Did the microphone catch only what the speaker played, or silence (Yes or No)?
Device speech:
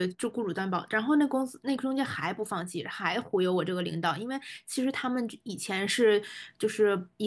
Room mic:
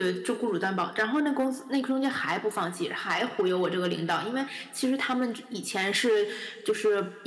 Yes